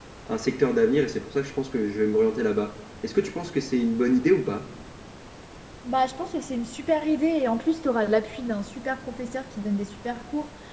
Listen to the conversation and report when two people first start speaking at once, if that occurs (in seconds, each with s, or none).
none